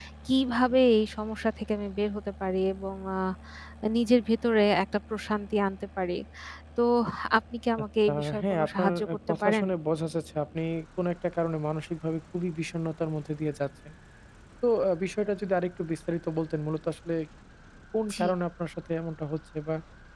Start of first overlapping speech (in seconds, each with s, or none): 8.1 s